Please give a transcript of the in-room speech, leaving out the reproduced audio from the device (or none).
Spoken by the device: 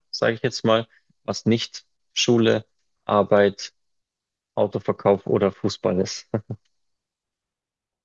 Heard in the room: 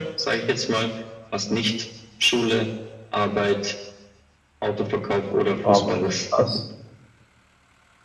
aber krass.